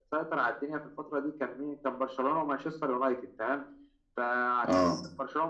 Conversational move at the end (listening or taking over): listening